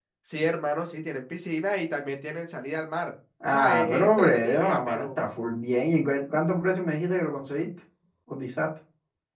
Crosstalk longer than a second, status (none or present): present